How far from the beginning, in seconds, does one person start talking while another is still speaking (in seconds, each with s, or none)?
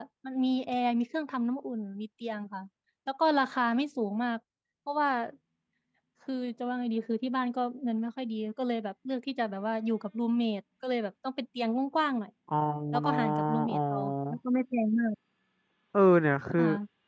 13.1 s